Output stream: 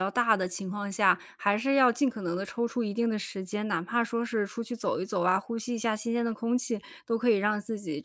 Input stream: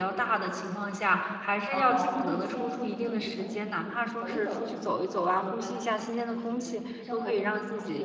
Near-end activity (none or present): present